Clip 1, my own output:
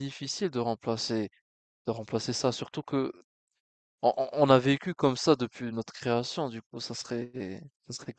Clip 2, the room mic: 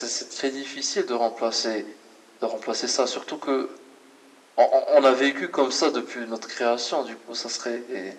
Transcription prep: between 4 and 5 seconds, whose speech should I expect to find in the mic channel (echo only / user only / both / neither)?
echo only